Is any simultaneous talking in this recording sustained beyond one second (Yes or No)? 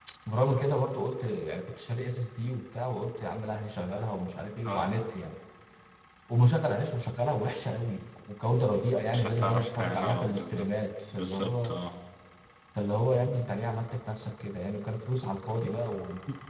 Yes